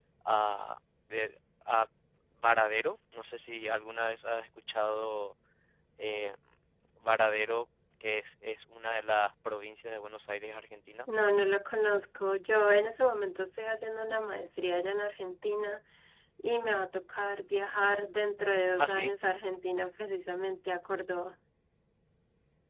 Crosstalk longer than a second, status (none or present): none